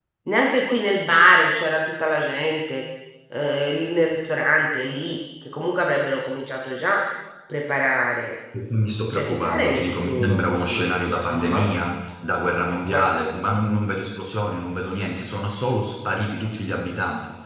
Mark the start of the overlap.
9.1 s

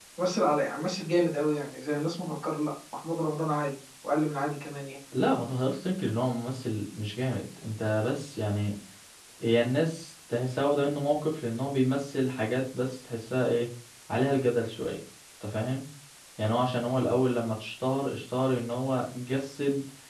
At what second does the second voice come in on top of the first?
none

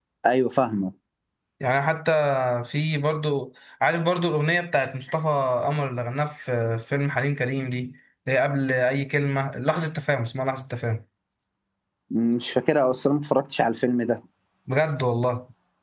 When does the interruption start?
none

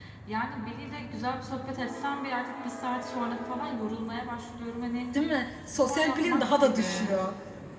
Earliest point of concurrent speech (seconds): 5.7 s

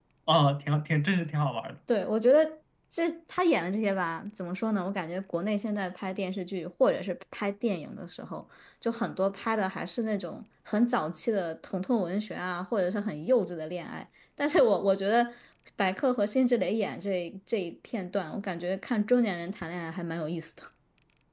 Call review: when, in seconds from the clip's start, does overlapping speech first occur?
none

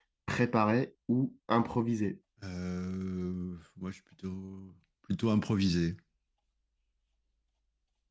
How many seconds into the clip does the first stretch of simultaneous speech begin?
none

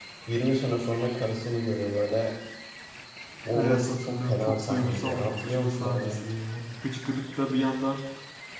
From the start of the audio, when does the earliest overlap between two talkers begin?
3.5 s

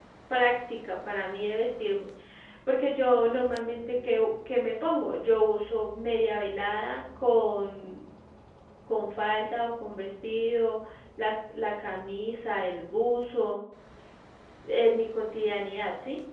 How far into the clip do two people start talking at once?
none

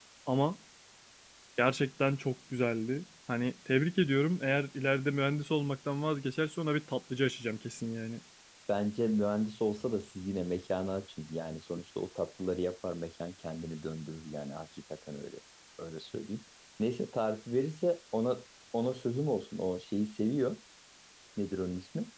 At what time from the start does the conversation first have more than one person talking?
none

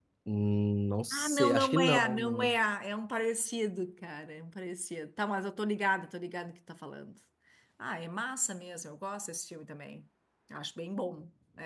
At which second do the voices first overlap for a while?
1.1 s

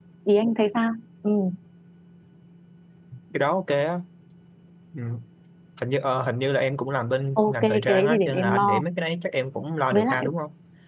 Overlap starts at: 7.4 s

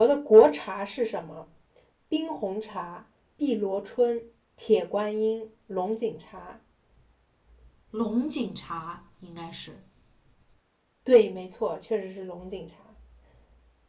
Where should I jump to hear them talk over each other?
none

